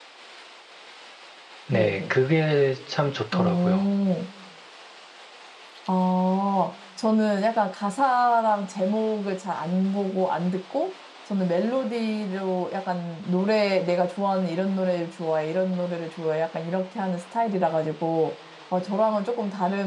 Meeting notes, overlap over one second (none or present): none